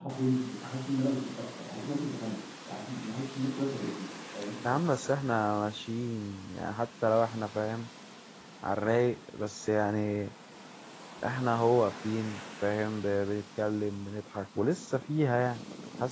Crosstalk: none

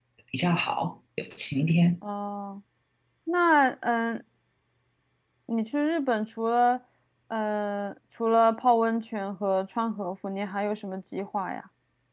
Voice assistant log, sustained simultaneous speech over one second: none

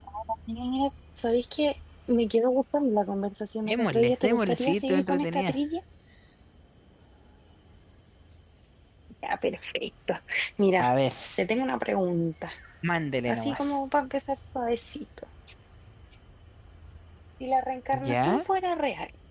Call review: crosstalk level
present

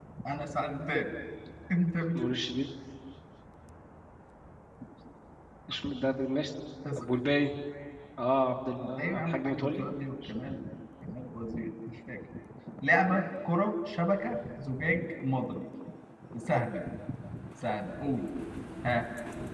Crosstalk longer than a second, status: present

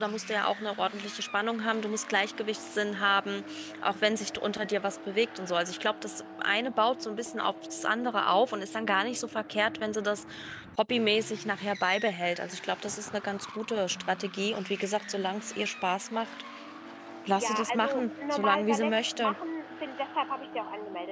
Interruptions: present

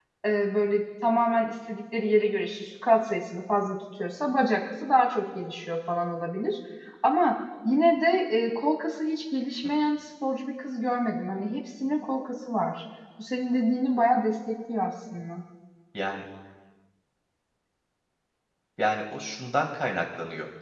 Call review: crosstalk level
none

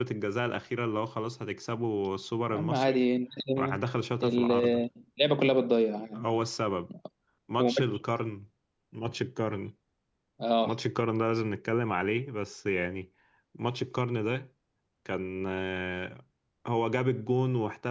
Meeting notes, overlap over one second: none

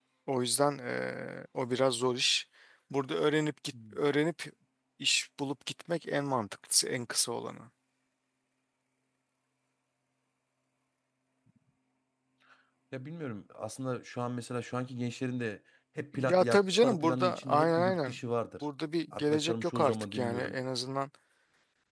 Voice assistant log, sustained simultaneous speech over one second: present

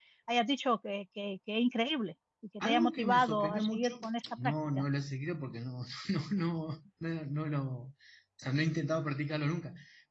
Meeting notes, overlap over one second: present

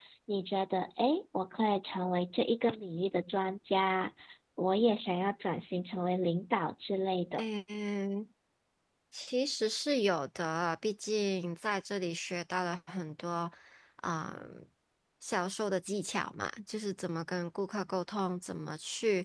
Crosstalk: none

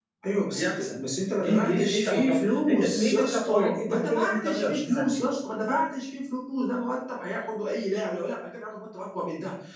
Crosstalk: present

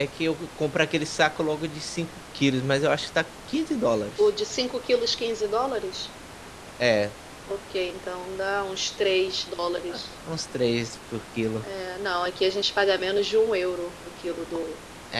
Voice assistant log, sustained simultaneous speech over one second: none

